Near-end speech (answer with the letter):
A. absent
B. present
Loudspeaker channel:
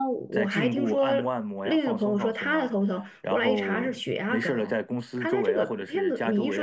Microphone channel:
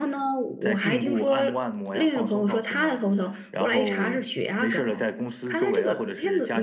A